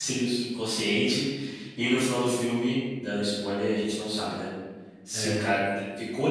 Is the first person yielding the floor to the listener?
No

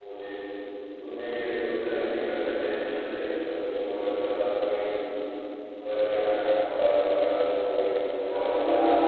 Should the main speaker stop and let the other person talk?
Yes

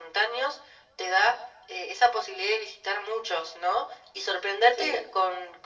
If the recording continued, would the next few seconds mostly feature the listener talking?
No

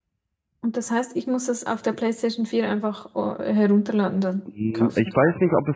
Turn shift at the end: Yes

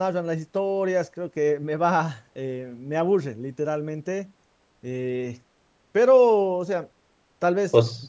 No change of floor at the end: Yes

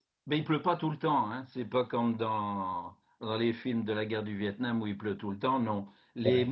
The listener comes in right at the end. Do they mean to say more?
No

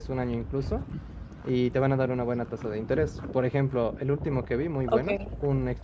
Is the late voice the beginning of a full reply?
No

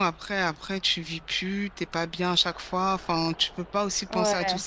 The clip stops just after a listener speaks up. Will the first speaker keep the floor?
Yes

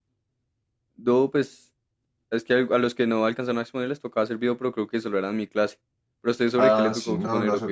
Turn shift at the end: Yes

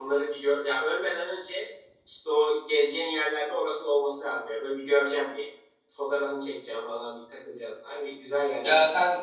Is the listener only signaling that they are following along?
No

